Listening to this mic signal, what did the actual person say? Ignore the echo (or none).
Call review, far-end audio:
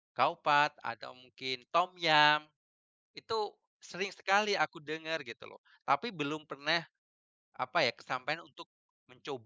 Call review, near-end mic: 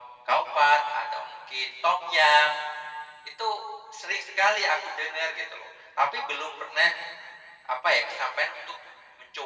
none